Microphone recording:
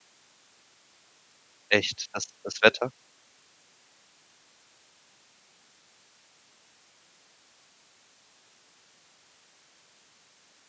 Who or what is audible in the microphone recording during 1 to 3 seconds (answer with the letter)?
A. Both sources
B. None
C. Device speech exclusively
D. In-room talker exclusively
D